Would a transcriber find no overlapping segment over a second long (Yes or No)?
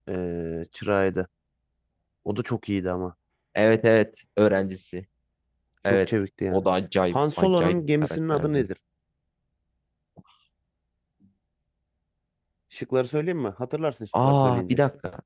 No